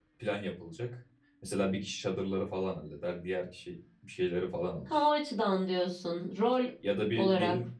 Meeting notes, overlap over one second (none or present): none